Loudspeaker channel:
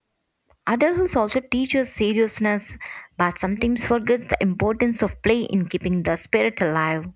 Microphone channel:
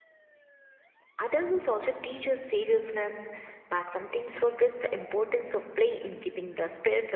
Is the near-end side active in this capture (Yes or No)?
No